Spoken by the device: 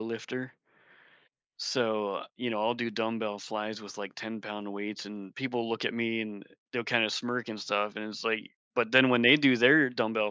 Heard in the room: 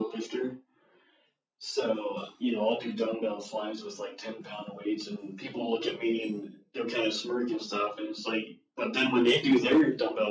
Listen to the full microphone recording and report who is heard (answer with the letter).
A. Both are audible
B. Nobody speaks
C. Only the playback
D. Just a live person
C